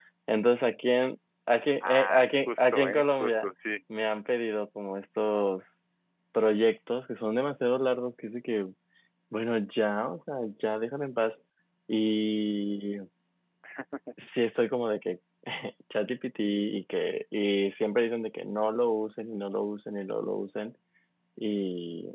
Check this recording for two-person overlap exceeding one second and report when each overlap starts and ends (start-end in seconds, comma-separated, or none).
1.8-3.5